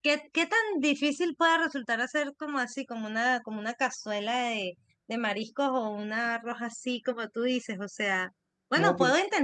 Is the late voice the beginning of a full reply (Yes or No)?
No